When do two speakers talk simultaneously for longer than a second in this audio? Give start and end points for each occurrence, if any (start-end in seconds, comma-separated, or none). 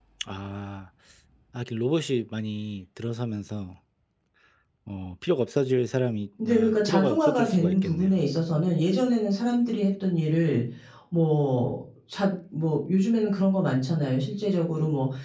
6.4-8.2